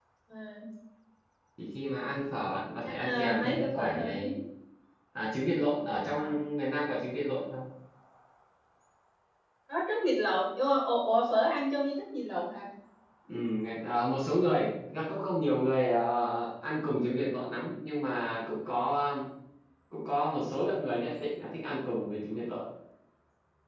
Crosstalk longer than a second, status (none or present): present